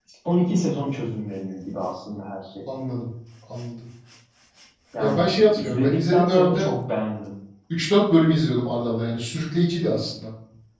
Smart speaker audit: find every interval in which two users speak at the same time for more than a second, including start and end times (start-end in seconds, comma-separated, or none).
5.0-6.7